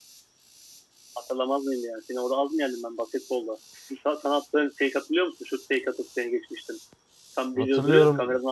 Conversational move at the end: taking over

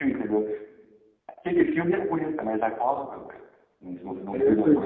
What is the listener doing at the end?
taking over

